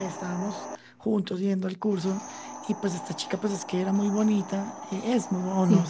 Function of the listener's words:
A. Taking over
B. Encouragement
B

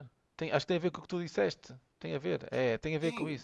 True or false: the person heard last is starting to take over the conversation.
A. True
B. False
A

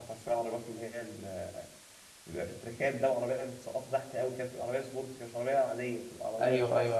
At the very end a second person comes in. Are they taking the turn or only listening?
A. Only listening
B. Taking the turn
B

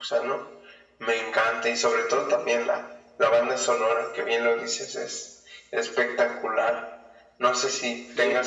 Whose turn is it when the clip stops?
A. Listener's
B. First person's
B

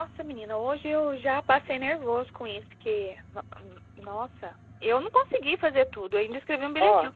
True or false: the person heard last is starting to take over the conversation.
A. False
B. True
A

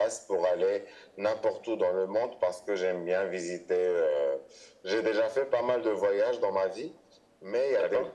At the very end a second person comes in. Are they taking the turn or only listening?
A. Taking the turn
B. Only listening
B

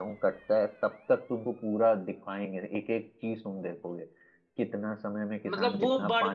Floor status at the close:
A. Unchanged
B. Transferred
B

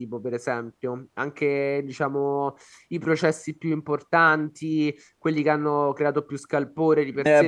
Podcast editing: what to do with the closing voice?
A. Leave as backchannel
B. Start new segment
B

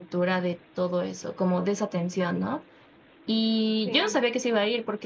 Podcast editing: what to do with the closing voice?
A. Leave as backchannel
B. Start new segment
A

